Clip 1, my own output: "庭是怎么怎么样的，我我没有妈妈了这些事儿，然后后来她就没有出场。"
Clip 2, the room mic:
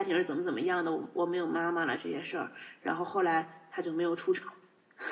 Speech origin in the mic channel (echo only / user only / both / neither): echo only